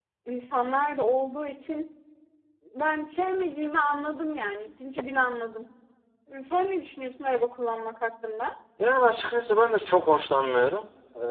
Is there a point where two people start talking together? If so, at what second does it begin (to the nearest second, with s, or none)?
none